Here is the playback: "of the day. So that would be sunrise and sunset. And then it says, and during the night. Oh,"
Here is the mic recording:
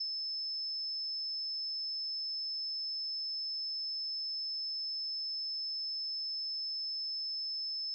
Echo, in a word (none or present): none